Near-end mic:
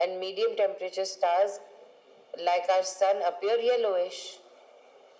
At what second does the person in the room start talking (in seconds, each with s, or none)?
none